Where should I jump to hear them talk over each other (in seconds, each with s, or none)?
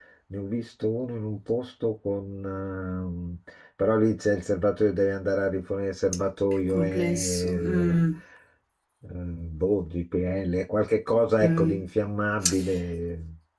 6.7 s